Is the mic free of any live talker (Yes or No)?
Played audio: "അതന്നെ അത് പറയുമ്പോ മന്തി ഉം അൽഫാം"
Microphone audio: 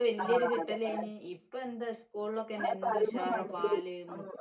No